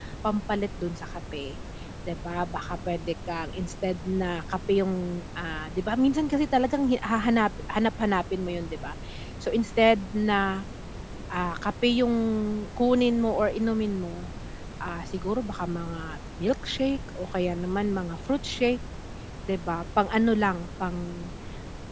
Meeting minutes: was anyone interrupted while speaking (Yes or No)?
No